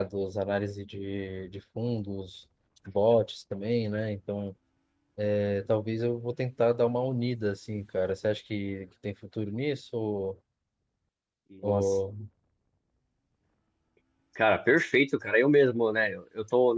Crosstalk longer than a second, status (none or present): none